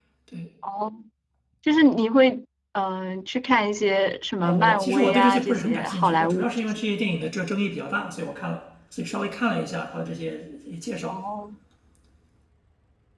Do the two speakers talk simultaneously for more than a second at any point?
Yes, from 4.4 s

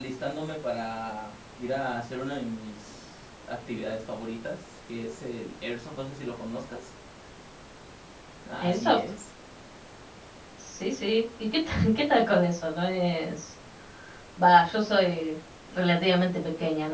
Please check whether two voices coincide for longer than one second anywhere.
No

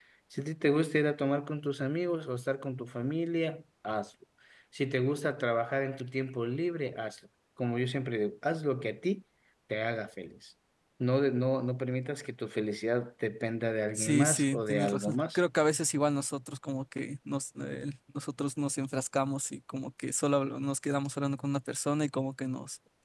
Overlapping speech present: Yes, from 13.9 s

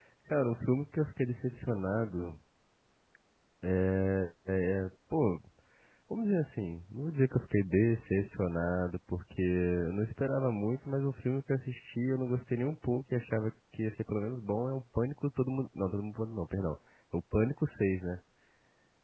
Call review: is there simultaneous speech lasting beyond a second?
No

